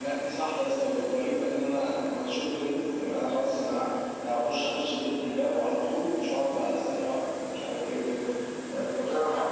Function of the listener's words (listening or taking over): taking over